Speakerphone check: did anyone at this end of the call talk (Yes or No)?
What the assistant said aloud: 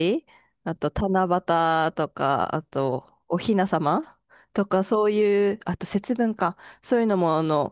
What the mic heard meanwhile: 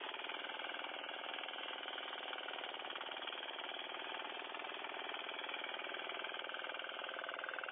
No